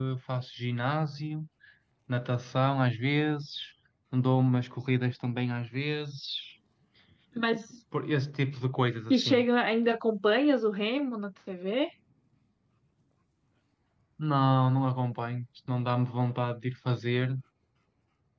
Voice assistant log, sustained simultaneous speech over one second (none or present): none